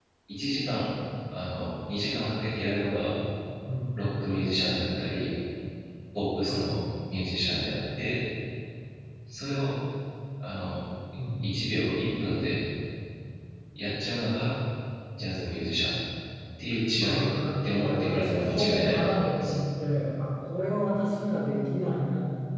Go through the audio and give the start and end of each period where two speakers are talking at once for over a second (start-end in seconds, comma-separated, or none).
17.8-19.5